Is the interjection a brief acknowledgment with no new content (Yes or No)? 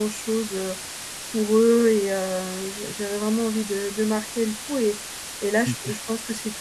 Yes